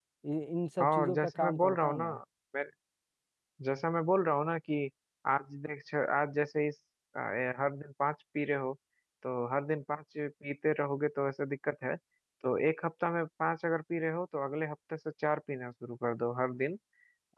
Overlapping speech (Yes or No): Yes